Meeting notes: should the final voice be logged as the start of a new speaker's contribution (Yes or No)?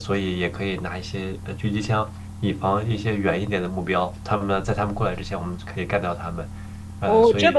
Yes